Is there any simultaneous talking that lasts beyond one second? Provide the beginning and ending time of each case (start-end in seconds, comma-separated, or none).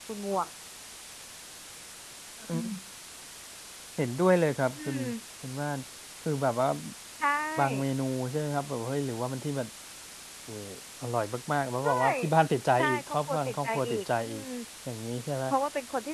12.8-14.4